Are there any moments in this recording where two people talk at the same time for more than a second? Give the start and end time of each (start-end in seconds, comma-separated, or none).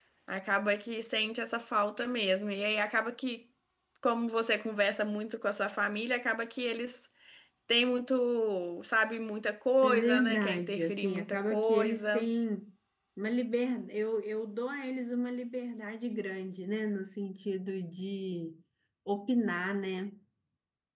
9.8-12.3